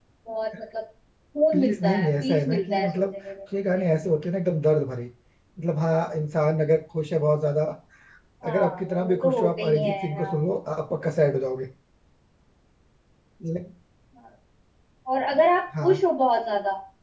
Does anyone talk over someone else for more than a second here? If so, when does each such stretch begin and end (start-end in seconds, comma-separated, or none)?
1.5-3.1, 8.5-10.3